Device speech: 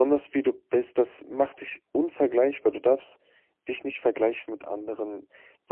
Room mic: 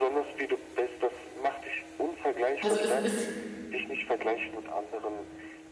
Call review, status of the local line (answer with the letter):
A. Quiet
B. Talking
B